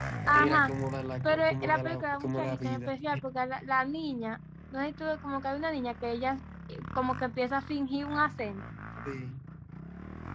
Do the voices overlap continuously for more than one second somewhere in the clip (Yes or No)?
Yes